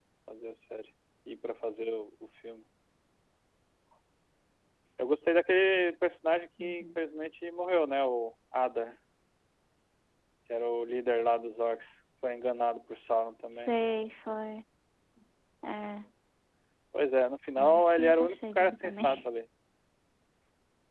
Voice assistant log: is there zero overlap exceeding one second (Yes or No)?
No